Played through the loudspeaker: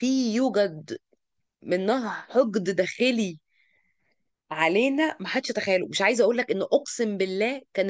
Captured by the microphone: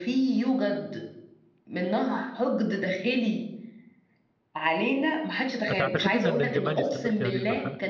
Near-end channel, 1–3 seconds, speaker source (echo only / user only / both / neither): echo only